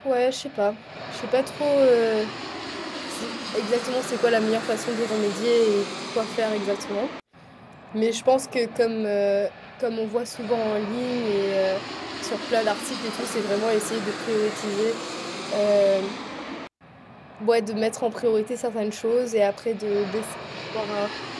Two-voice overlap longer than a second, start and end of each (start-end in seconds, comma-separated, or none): none